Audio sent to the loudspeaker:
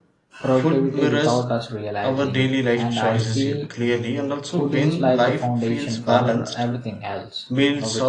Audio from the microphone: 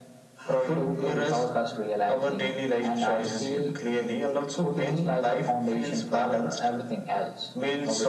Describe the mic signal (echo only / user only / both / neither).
echo only